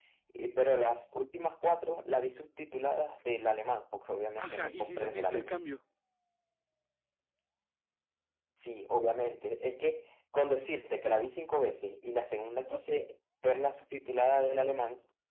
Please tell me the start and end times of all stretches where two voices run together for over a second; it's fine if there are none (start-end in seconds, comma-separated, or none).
4.4-5.6